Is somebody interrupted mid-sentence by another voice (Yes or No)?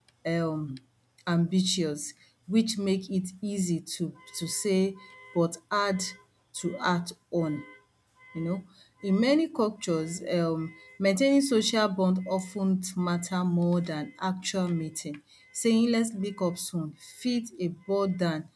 No